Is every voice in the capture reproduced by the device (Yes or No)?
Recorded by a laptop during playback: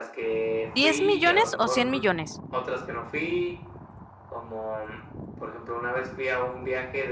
No